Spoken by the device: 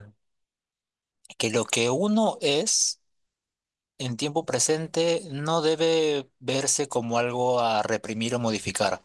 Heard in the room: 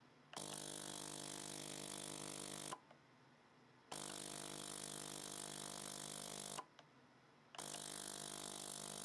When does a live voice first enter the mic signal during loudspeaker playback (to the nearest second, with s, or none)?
none